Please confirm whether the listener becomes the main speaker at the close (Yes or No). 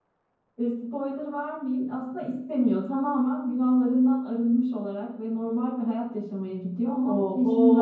Yes